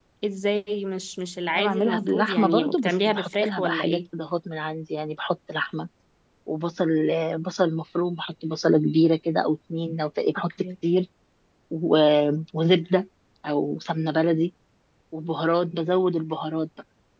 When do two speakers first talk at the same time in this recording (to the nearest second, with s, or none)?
2 s